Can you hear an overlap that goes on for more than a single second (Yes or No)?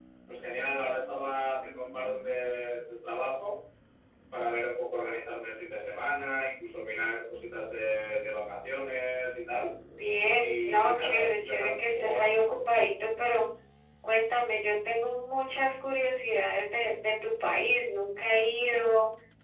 Yes